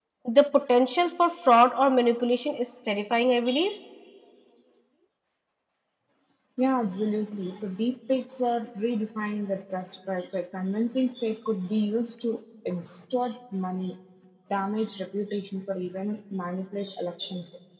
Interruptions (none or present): none